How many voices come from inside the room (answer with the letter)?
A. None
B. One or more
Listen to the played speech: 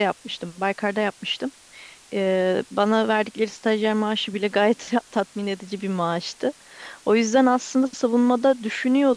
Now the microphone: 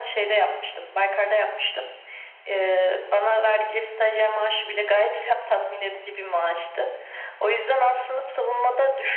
A